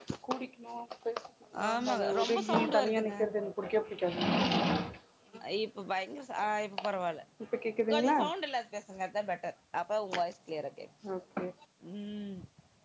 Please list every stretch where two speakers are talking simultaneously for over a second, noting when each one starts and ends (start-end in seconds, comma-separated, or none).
1.7-3.1